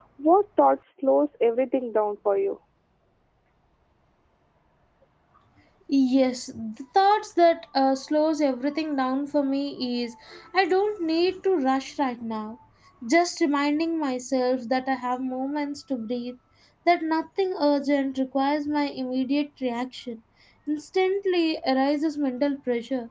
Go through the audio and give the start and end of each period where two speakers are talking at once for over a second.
none

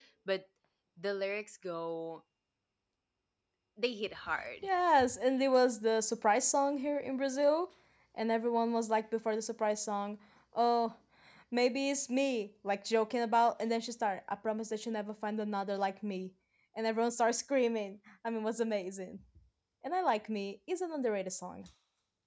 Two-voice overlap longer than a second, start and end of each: none

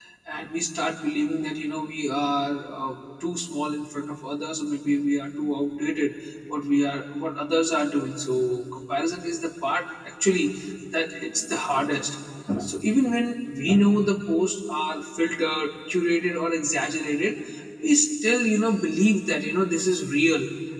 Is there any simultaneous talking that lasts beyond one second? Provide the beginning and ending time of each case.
none

